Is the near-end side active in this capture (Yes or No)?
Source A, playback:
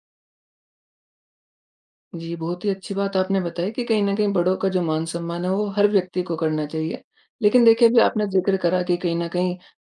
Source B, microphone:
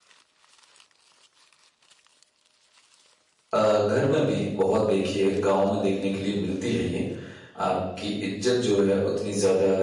Yes